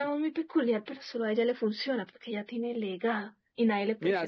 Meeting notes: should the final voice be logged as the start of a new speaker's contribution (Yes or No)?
Yes